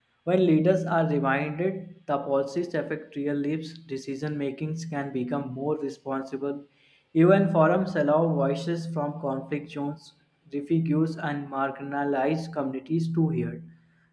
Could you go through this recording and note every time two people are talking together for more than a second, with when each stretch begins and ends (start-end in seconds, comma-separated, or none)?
none